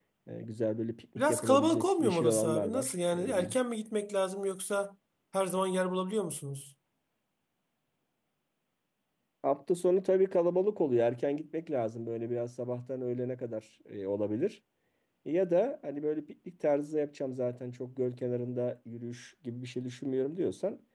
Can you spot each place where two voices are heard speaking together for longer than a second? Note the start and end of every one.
1.2-3.5

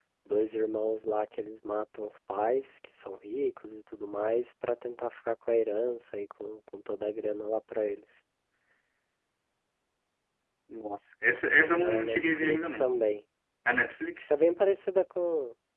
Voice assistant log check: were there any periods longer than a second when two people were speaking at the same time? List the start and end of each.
11.6-12.9

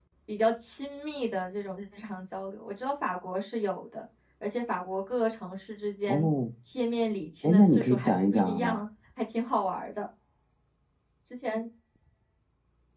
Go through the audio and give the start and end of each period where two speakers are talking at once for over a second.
7.4-8.8

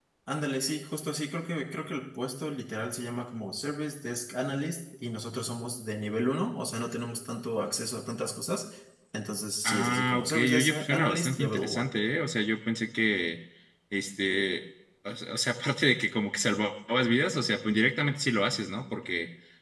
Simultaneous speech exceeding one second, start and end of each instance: 9.7-11.9

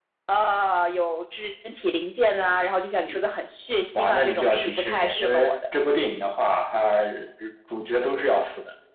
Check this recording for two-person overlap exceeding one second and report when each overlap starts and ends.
4.0-5.6

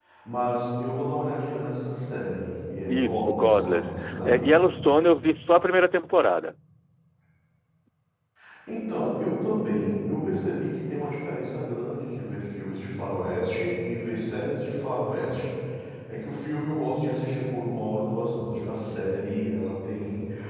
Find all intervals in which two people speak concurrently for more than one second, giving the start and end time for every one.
2.9-4.4

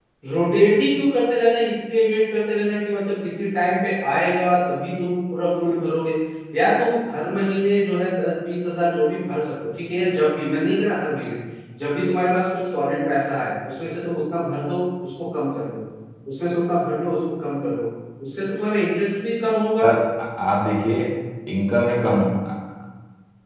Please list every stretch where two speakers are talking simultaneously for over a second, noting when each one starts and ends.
none

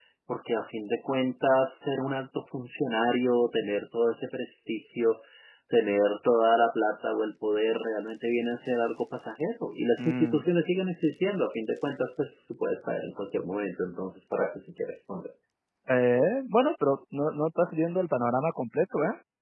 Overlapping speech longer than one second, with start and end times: none

